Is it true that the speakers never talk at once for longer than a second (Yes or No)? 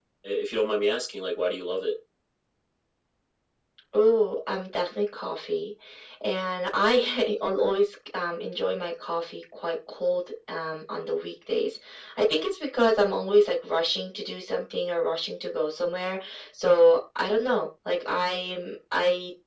Yes